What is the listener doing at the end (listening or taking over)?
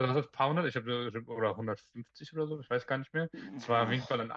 listening